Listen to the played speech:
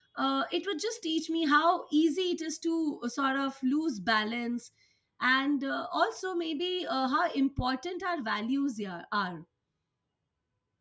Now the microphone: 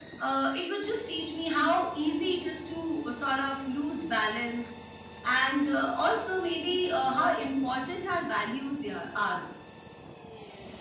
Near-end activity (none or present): none